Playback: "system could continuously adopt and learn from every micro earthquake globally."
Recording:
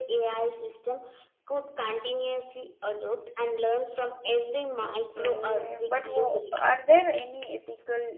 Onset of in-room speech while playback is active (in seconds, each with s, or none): 4.8 s